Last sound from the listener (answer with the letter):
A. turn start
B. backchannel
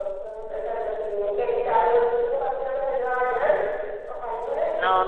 A